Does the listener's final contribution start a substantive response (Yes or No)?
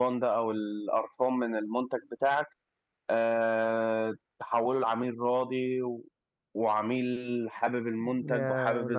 No